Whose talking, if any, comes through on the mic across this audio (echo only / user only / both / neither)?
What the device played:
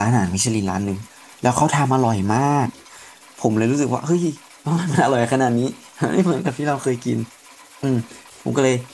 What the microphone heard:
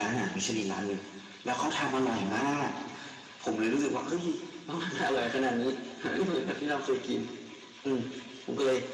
echo only